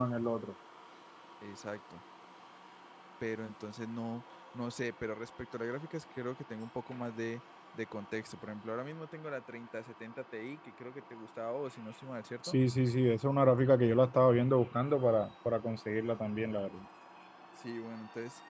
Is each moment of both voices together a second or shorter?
Yes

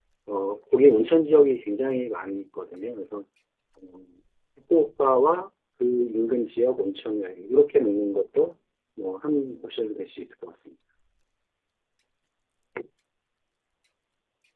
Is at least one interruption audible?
No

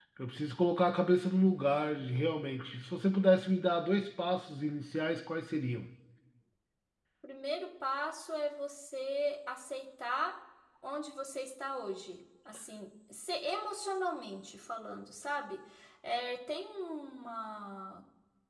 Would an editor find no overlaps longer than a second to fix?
Yes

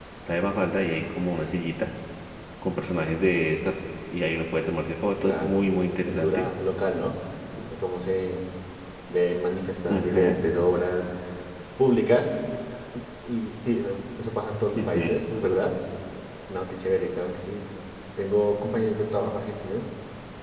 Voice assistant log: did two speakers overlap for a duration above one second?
Yes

